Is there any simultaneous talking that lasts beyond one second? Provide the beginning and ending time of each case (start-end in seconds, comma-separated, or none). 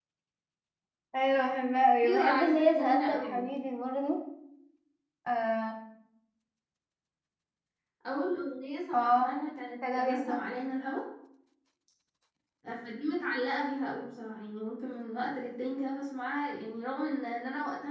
2.0-3.4